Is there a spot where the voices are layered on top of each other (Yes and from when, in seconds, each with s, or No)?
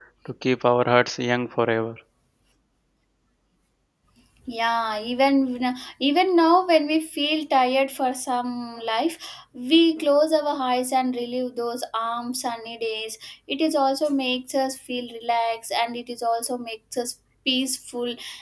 No